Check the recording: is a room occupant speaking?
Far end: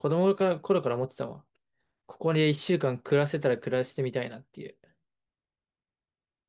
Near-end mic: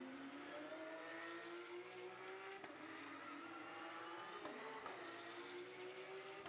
No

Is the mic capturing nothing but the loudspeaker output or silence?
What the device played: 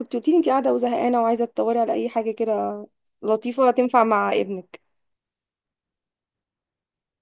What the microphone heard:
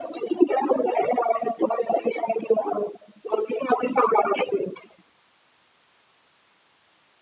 Yes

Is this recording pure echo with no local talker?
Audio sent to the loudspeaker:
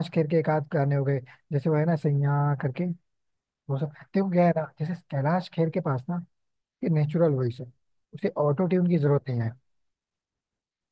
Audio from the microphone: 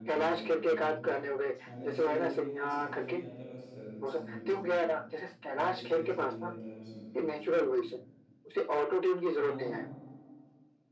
No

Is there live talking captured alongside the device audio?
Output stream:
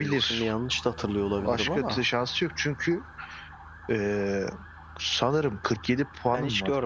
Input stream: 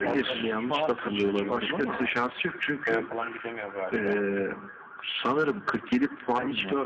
Yes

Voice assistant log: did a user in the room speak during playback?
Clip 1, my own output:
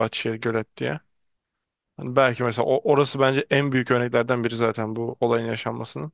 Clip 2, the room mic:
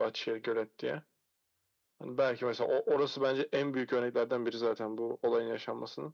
No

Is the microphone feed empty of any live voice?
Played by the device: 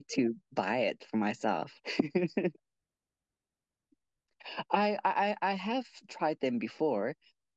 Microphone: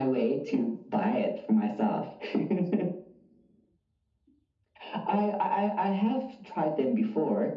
Yes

